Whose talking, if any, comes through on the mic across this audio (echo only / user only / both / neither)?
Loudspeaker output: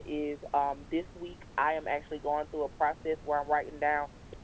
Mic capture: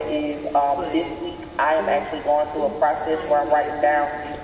both